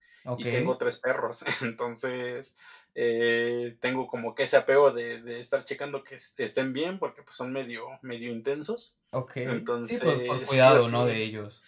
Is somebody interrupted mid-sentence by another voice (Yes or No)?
Yes